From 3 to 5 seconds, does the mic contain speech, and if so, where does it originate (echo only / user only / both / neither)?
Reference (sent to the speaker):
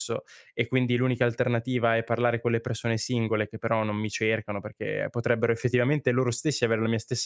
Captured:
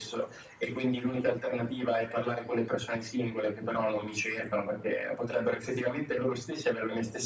echo only